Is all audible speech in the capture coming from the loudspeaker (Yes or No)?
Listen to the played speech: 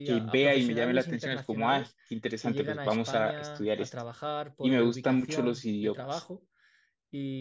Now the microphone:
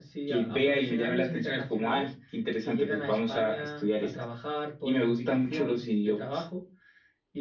Yes